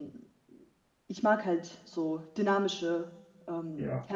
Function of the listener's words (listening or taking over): taking over